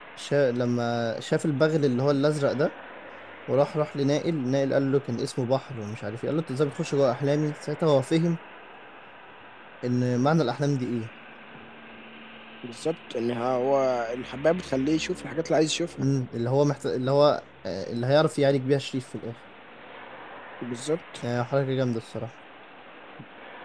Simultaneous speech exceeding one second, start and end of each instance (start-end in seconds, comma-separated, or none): none